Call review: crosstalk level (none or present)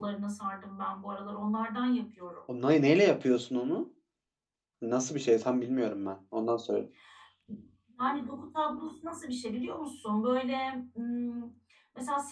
none